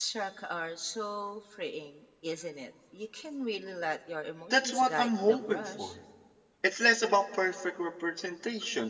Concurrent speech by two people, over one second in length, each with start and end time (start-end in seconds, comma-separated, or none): 4.5-5.9